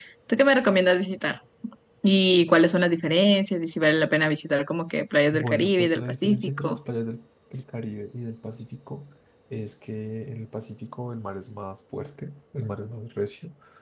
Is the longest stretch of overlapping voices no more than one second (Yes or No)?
No